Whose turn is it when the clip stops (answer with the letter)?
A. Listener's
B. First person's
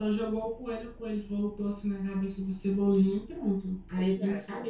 B